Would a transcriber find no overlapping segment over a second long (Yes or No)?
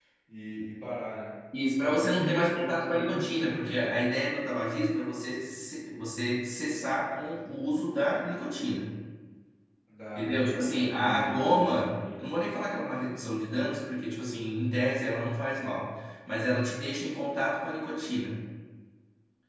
No